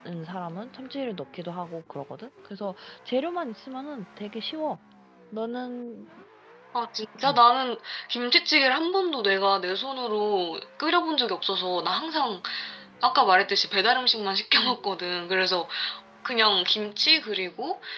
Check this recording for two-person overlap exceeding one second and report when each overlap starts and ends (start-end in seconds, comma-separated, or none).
none